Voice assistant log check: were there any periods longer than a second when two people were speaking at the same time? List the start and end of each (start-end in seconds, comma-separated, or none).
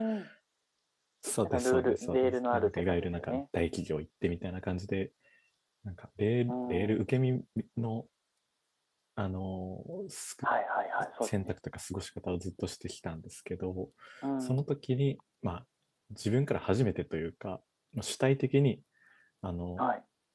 1.4-3.4